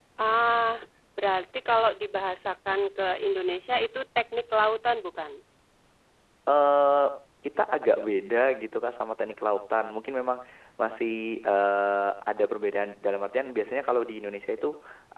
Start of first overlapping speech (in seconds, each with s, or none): none